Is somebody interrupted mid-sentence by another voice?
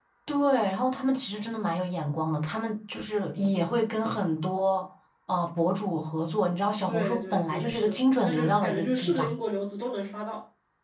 Yes, from 6.9 s

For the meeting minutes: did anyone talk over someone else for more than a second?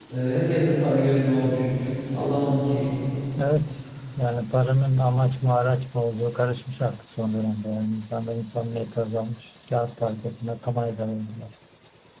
No

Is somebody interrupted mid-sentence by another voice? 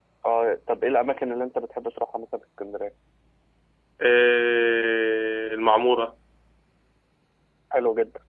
No

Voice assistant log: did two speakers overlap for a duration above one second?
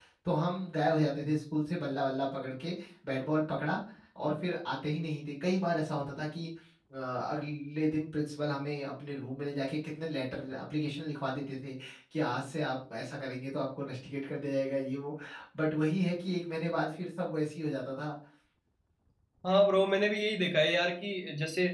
No

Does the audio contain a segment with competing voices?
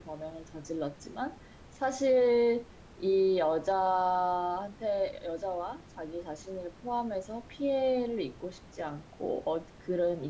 No

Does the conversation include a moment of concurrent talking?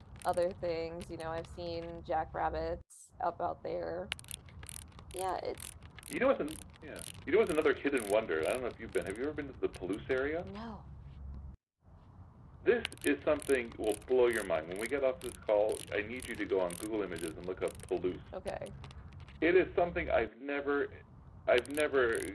No

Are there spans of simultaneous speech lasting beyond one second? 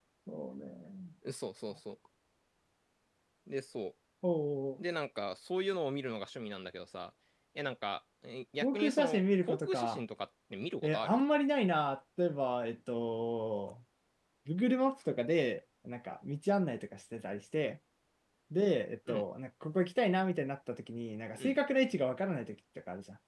Yes, from 8.6 s

